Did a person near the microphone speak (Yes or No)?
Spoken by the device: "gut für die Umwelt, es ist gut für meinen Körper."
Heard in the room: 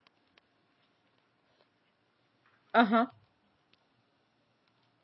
Yes